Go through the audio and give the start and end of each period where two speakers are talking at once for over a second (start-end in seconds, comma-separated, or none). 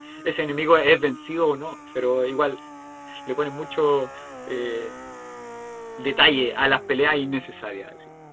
none